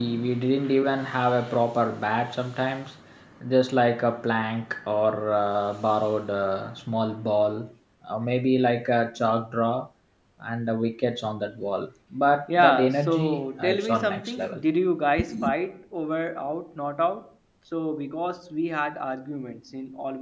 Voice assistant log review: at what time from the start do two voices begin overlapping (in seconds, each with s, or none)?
12.6 s